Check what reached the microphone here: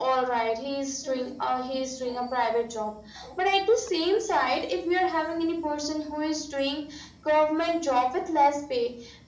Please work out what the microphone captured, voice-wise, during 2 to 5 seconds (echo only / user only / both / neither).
echo only